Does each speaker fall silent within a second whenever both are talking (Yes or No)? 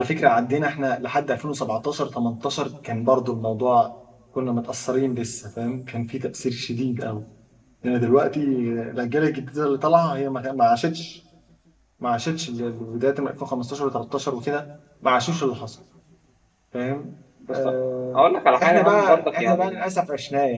No